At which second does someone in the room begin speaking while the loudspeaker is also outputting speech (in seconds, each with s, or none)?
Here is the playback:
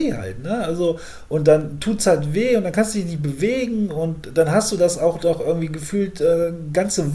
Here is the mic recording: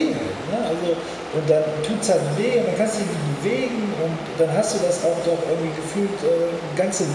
none